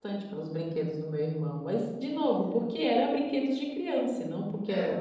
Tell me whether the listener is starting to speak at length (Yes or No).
No